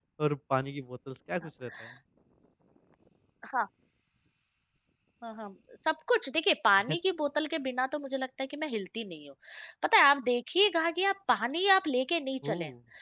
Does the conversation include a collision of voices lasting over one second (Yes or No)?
No